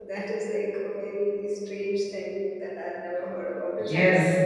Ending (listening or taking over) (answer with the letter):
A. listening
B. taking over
B